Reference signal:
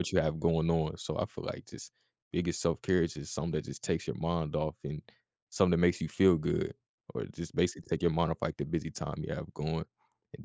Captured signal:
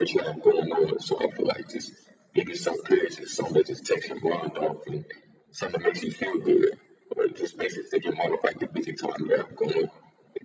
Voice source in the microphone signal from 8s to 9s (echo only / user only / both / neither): echo only